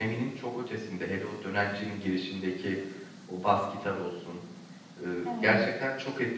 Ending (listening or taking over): listening